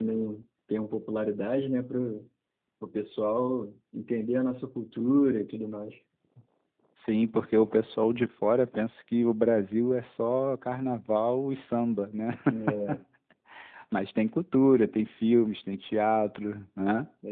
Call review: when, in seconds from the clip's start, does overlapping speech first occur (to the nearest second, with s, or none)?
none